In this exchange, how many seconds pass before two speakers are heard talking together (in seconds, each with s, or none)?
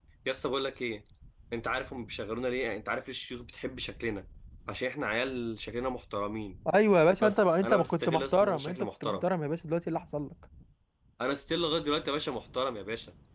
7.2 s